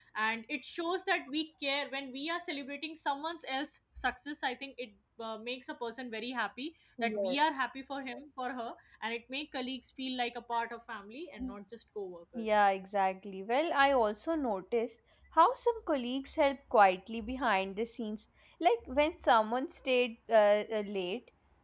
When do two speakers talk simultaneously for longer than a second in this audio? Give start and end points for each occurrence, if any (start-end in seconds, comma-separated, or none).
none